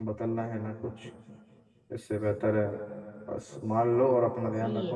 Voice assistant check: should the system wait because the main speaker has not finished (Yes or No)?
Yes